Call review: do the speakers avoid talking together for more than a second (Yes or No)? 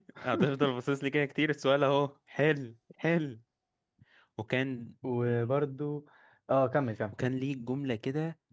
Yes